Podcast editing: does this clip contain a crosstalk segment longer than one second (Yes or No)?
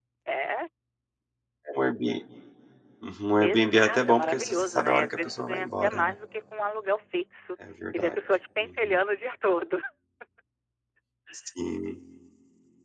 Yes